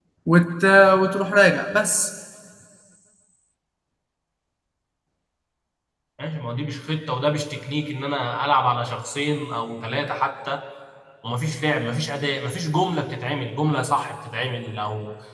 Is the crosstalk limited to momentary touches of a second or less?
Yes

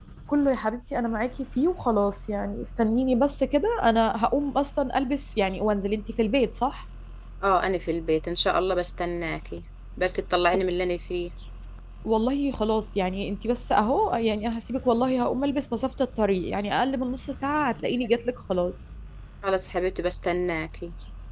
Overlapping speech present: No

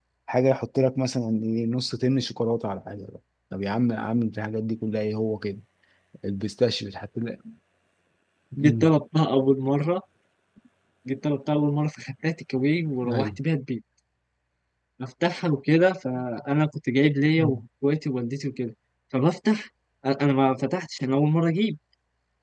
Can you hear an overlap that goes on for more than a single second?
No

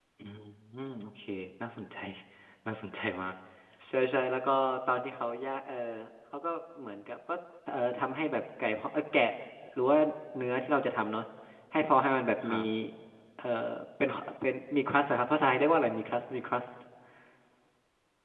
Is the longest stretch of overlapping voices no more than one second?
Yes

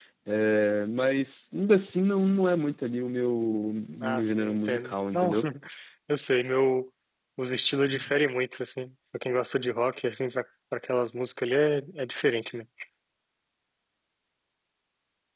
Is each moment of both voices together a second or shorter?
No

